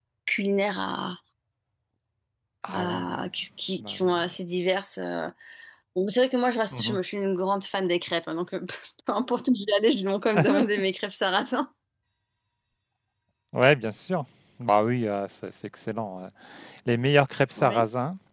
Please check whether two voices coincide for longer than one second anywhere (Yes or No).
No